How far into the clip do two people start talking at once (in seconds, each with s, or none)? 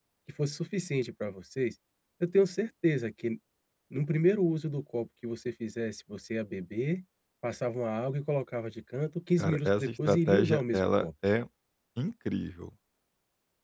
9.4 s